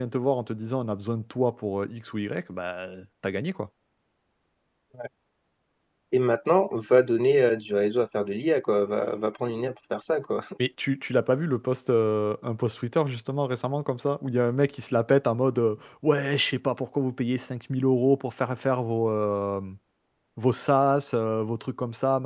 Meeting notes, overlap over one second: none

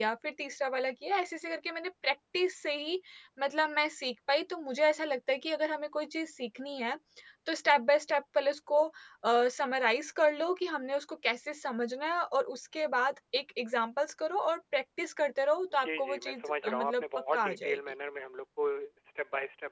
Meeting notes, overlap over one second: present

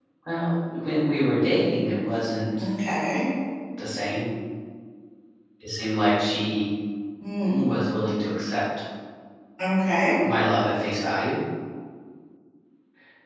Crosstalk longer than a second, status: none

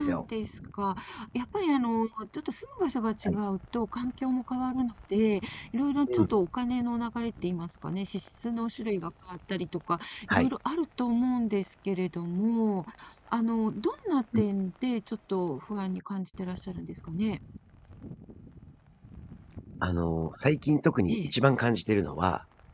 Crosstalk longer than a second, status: none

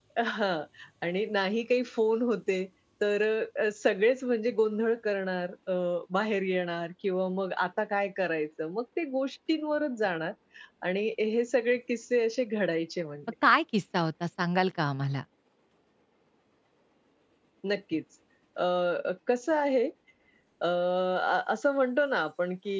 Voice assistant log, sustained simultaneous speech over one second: none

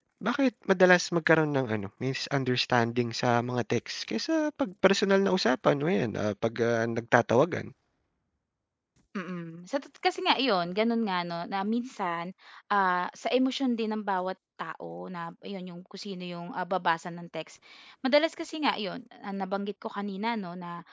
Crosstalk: none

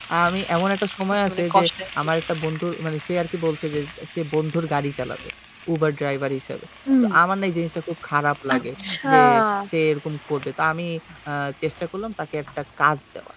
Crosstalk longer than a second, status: none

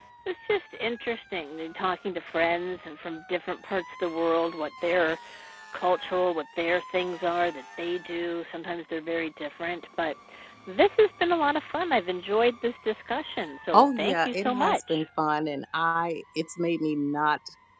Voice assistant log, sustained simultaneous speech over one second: present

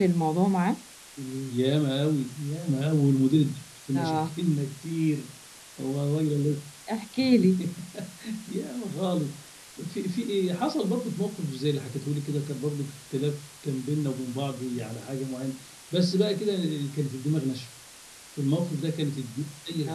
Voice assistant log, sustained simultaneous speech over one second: none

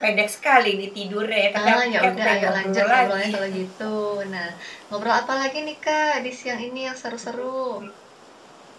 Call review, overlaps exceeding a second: present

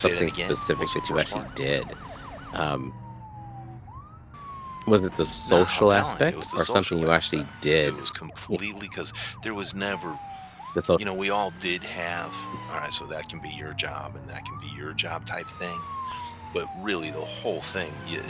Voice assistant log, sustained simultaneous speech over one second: present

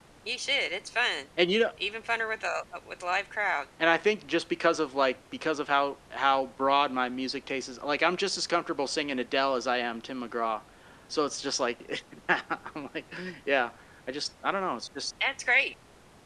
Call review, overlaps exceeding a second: none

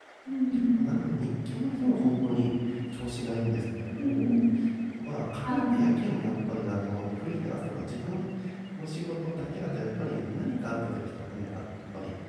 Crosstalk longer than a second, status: none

